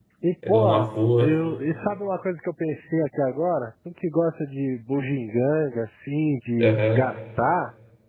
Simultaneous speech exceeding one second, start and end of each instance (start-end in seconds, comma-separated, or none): none